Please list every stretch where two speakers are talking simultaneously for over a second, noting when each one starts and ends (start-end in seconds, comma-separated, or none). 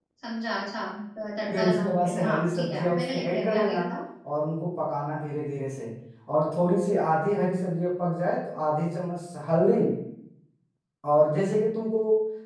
1.5-3.9